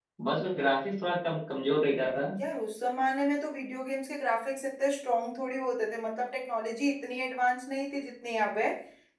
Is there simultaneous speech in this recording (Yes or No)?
No